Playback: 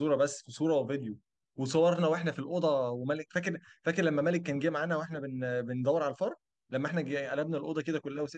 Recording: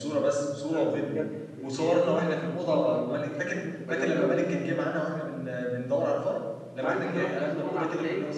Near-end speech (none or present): present